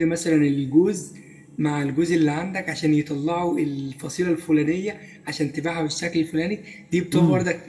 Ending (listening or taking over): listening